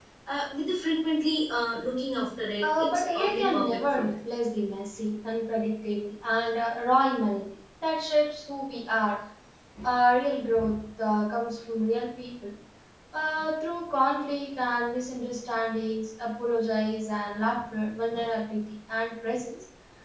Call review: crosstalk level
present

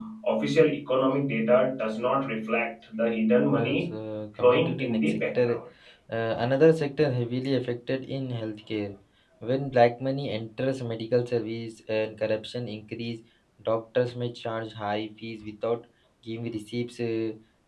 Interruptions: present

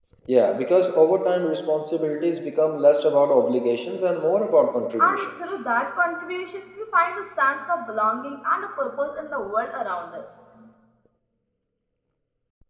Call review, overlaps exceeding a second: none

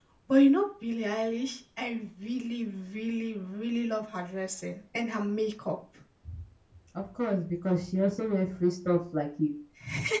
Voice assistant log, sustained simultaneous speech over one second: none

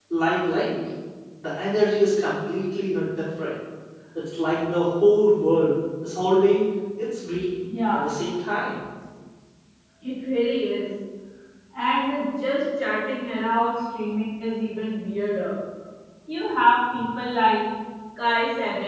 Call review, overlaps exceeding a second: none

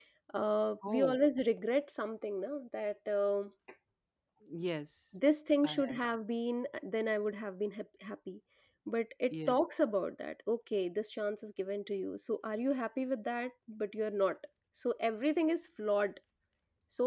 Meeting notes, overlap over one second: none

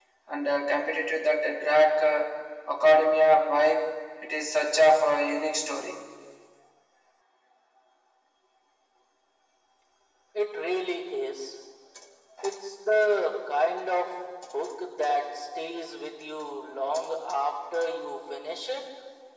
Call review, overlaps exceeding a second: none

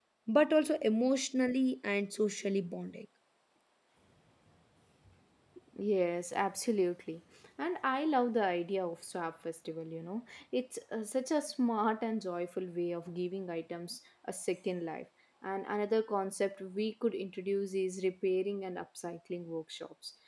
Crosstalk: none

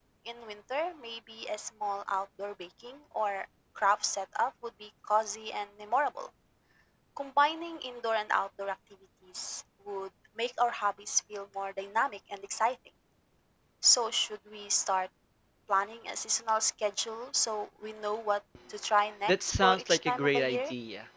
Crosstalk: present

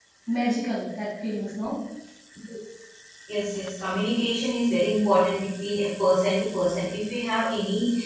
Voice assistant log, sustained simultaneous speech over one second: none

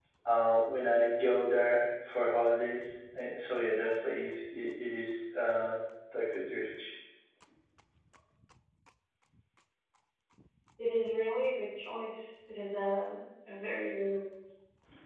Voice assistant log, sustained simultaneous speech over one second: none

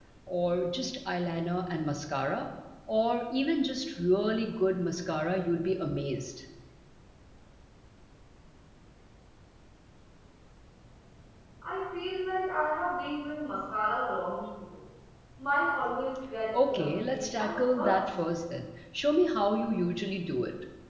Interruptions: present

